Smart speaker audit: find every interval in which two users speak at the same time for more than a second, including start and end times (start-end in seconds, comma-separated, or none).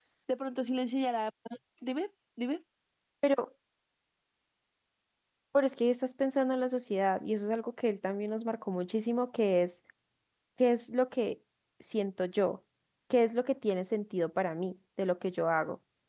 none